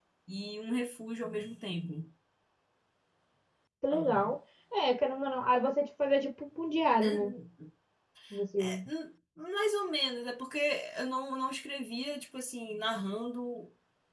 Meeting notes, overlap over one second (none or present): none